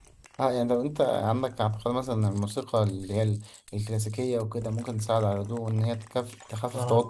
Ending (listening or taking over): listening